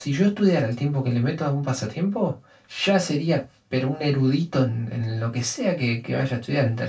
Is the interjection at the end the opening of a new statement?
Yes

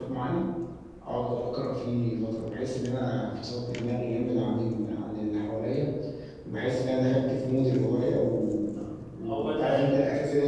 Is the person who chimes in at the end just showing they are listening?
Yes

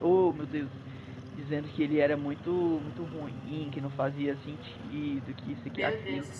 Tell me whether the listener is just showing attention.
No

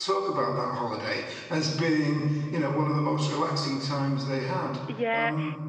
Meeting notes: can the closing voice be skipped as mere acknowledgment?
No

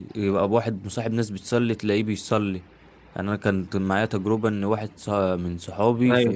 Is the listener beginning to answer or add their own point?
No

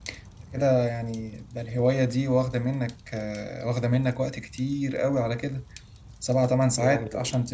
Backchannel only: Yes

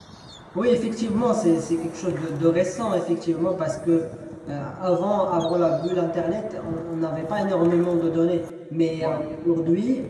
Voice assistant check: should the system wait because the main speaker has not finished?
Yes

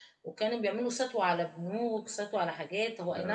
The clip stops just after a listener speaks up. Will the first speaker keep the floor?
Yes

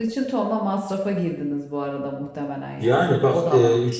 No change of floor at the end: No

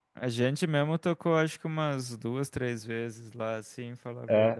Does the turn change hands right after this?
Yes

